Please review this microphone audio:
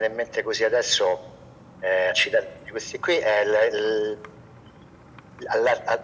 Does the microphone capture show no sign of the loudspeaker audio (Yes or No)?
No